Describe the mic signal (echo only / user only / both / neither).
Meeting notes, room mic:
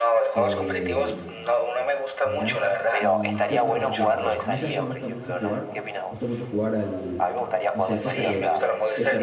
both